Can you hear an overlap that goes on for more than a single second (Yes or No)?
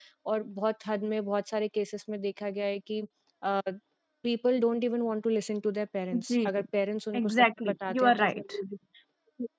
Yes